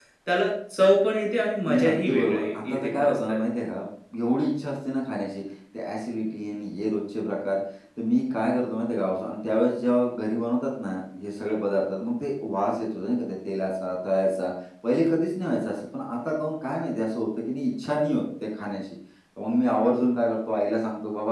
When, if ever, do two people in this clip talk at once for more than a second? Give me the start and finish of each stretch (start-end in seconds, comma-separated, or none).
1.7-3.4